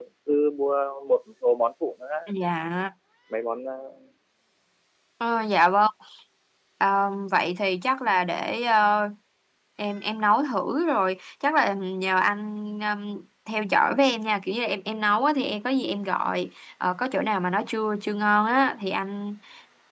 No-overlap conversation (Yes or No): Yes